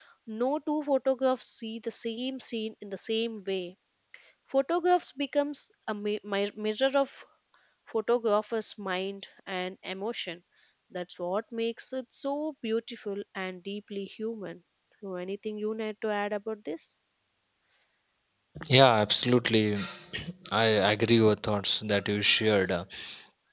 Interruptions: none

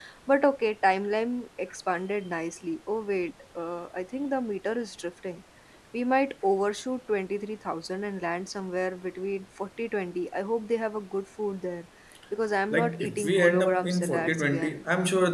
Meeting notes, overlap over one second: present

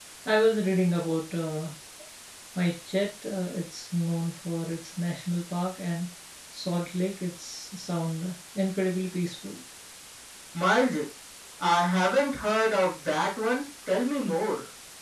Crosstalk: none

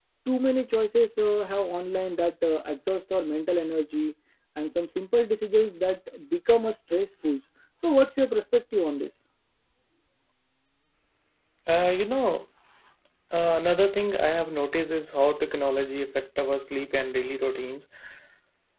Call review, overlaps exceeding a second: none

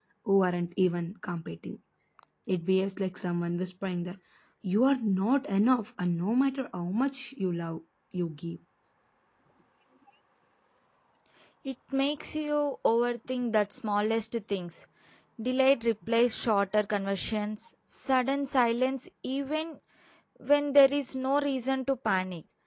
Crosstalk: none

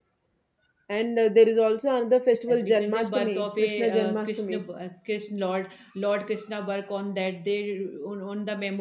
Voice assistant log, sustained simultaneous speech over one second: present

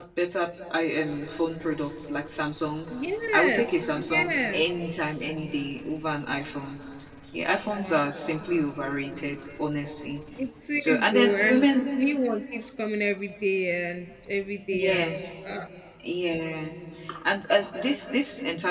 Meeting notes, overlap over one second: present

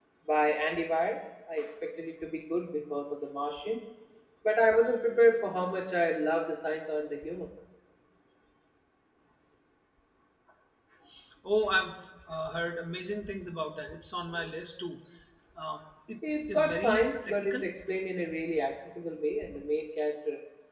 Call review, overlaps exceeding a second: present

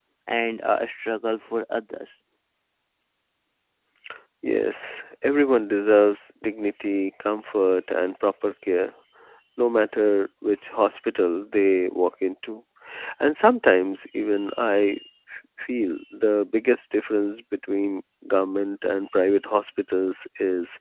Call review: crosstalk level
none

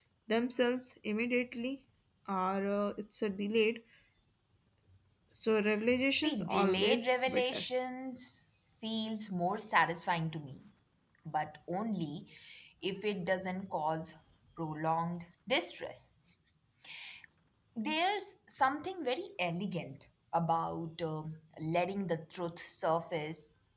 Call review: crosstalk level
present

